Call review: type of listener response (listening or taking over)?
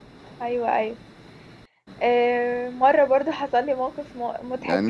taking over